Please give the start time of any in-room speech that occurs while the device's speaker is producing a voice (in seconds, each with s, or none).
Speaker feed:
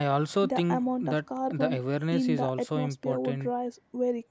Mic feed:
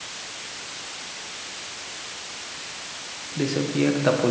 3.4 s